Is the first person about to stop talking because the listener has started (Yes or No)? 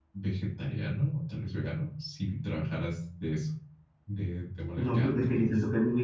Yes